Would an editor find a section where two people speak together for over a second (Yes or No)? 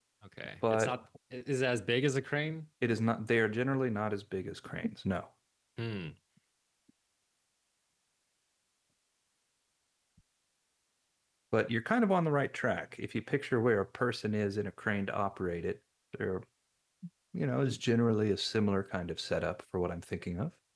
No